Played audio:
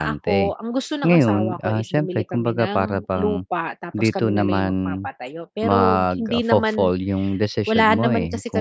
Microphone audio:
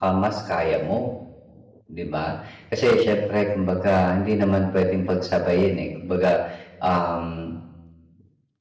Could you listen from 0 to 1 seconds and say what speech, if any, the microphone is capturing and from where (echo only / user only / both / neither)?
user only